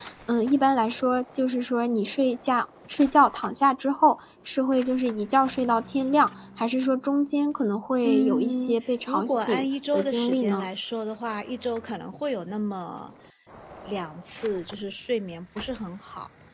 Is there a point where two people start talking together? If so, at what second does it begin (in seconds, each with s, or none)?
8.0 s